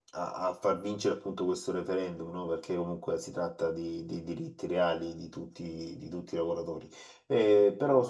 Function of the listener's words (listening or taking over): taking over